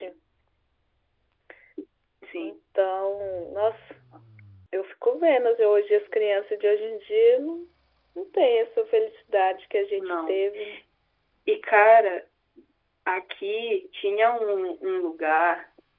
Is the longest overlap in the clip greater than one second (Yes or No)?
No